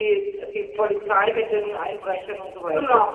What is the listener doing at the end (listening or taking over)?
taking over